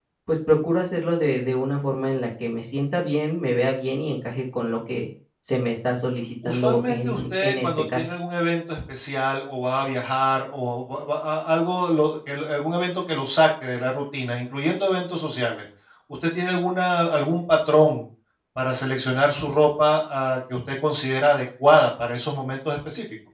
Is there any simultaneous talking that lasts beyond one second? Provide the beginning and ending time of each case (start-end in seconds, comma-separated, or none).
6.4-8.1